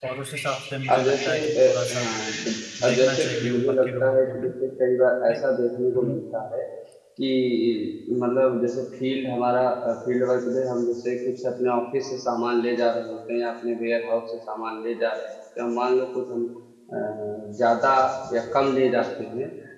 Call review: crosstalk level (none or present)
present